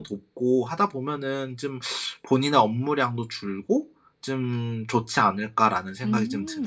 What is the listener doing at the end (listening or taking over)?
taking over